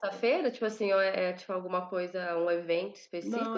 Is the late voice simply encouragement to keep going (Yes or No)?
No